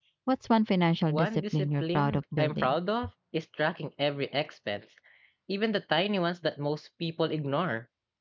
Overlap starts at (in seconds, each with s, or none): 1.1 s